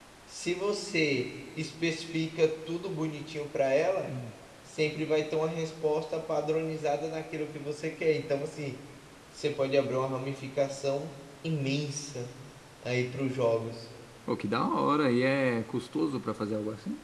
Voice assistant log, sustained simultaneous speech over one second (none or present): none